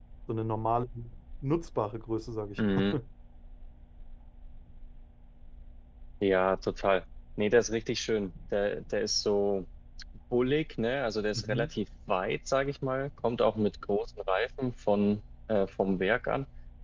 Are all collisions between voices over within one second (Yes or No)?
Yes